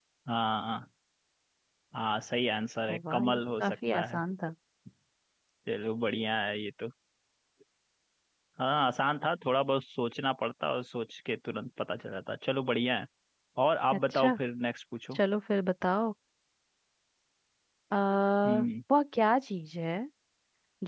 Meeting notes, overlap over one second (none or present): present